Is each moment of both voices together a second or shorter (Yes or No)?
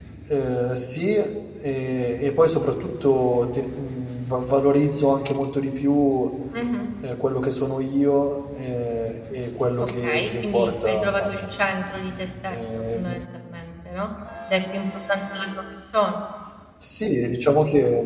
No